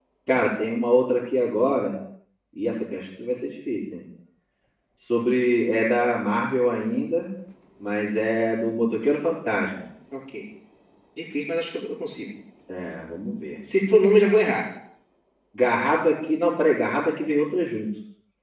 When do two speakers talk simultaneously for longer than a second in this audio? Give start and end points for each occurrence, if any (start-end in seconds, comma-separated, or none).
none